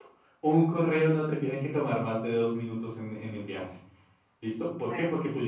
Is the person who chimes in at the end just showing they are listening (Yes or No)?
Yes